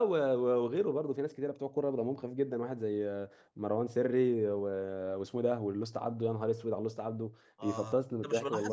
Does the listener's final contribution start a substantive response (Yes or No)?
Yes